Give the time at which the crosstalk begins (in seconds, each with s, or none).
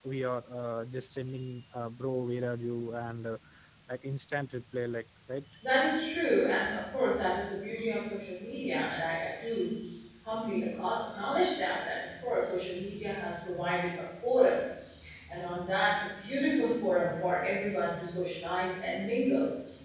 none